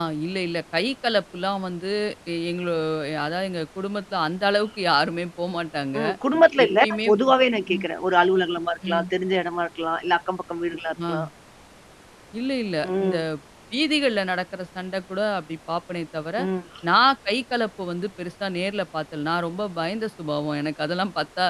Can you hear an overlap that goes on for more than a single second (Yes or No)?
No